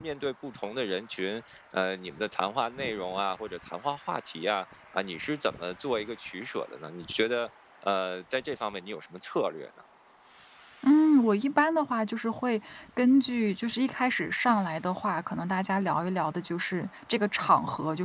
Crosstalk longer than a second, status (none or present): none